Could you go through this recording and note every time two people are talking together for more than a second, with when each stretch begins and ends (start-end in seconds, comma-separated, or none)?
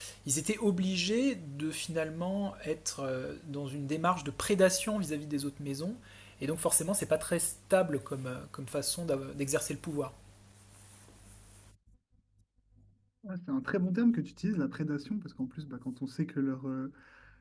none